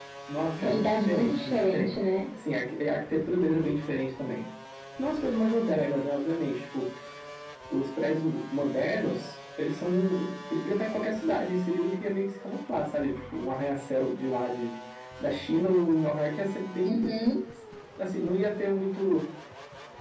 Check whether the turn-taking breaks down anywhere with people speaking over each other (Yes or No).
Yes